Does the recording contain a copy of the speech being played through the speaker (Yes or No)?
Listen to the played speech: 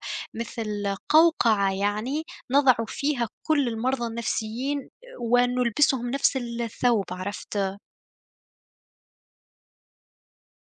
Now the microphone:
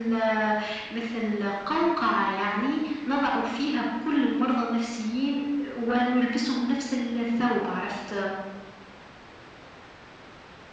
Yes